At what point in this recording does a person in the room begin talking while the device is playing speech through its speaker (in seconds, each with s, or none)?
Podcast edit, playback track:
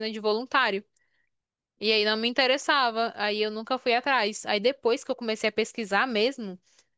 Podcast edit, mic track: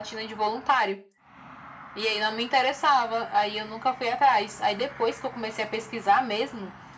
none